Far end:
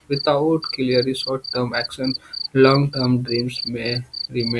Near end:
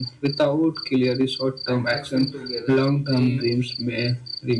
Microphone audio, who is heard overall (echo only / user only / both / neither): both